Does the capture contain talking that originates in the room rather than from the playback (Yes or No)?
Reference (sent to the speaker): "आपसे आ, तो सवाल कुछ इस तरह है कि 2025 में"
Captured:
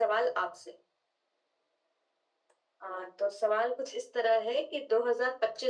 No